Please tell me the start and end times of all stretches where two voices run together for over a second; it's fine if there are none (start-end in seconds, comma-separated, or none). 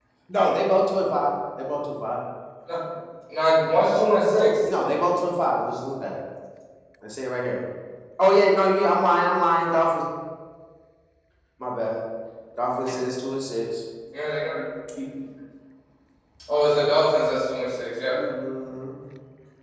none